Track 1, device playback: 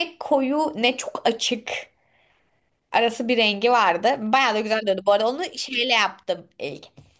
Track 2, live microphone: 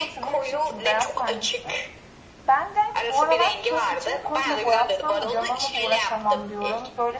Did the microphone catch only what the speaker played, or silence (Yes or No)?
No